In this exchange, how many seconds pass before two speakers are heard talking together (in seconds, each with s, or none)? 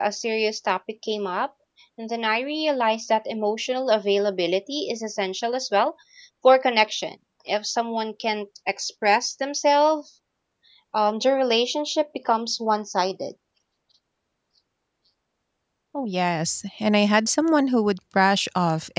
none